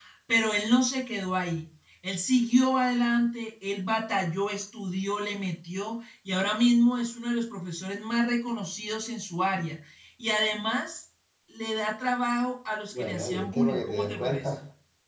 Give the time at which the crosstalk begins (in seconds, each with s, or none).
12.9 s